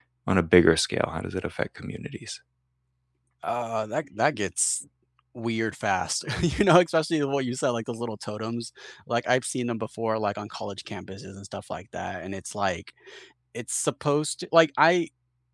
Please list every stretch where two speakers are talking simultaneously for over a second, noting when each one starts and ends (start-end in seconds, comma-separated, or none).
none